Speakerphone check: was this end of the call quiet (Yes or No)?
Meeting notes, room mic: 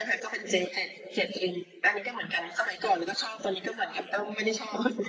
Yes